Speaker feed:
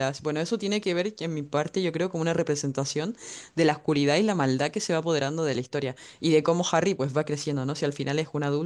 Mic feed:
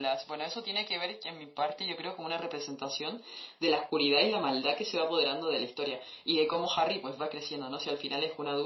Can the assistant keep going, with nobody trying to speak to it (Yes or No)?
Yes